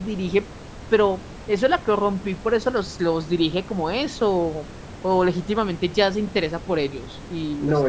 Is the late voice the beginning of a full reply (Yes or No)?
Yes